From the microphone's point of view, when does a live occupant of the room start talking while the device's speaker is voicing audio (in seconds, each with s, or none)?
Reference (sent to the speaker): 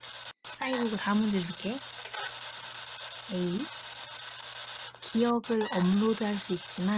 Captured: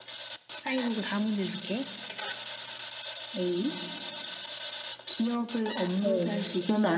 6.0 s